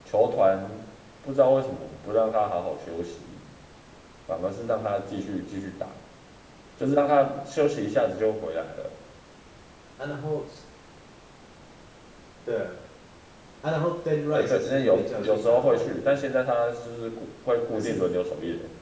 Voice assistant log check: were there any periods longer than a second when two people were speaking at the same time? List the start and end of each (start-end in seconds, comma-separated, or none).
14.3-16.2